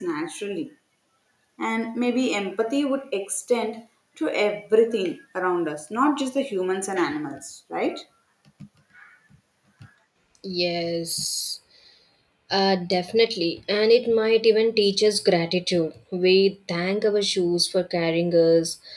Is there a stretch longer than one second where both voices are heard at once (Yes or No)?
No